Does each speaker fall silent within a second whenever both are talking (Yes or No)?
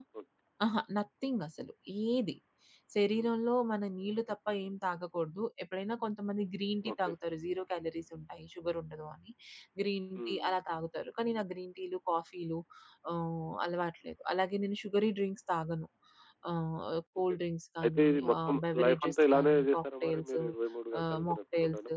No